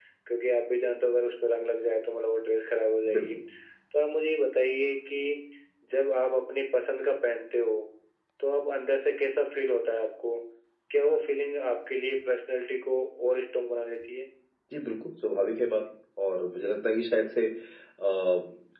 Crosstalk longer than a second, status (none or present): none